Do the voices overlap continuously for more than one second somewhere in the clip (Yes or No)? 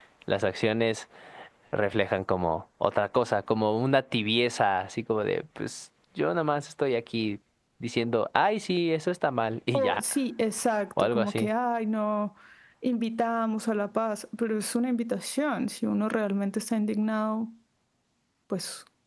No